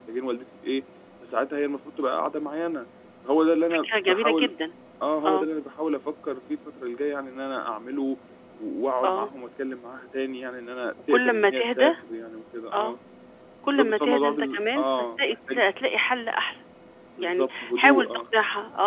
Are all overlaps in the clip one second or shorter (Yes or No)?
No